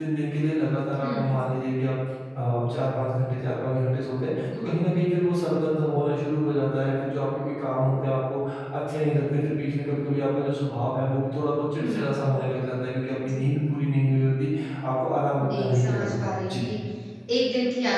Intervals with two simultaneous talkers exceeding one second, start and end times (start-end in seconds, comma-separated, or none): 15.4-16.6